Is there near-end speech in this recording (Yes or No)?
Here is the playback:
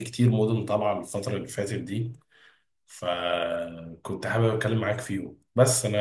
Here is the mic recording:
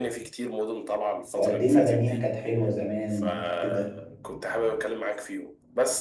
Yes